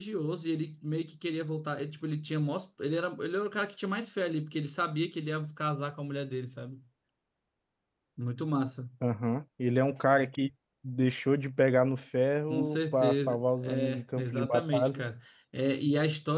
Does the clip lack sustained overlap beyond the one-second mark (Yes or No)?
No